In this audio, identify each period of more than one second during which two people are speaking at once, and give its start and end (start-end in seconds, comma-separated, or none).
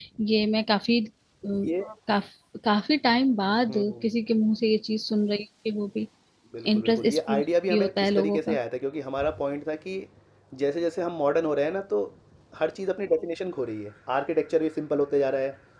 6.7-8.6